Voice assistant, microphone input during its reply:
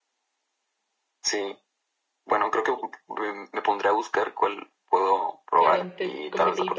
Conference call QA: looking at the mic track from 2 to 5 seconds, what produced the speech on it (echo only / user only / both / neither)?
echo only